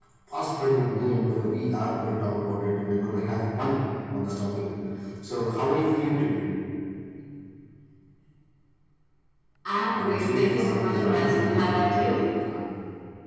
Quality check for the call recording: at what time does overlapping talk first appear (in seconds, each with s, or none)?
9.9 s